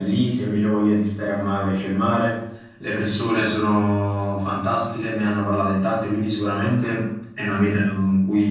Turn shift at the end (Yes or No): No